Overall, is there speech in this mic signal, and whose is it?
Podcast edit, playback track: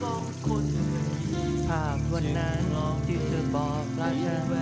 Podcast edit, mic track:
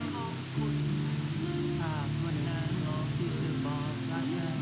echo only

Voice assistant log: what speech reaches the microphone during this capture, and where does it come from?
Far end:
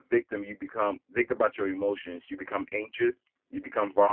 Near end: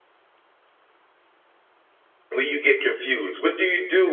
user only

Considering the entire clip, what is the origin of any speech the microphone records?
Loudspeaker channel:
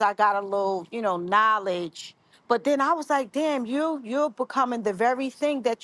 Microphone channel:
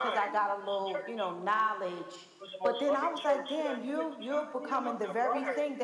both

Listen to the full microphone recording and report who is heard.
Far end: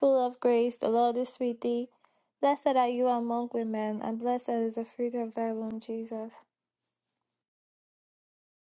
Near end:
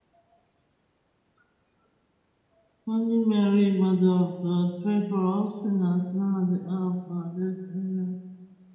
user only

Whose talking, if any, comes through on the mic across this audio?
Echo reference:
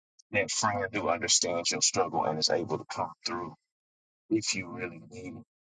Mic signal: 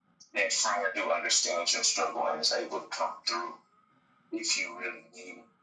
echo only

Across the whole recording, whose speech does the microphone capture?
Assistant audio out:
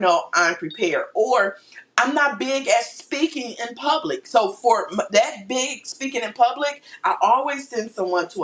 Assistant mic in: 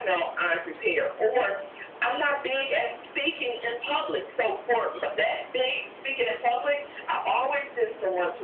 echo only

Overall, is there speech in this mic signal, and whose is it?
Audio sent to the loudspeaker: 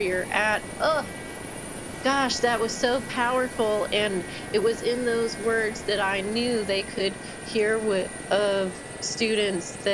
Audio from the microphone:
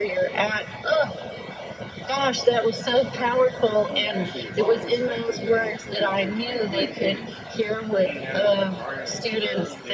both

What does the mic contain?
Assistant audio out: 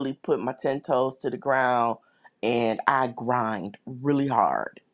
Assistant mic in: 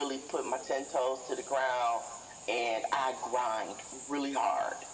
echo only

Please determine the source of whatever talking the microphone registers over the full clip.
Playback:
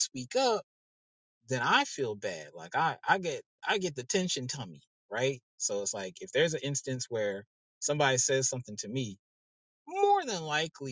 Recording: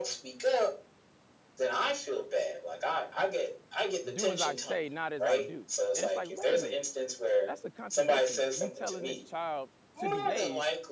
both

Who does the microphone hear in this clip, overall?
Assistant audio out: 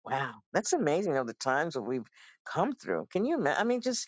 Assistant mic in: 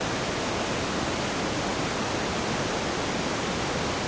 neither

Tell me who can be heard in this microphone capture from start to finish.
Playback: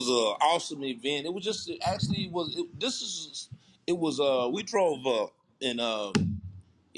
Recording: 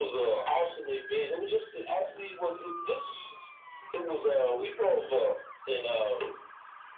echo only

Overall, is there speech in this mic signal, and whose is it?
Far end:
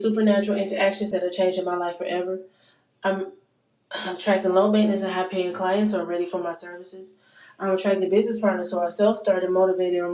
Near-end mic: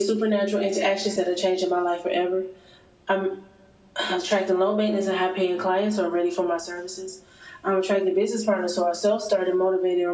echo only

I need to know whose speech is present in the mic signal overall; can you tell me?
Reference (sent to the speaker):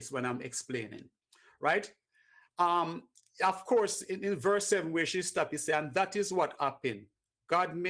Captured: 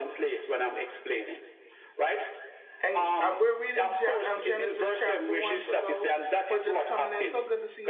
both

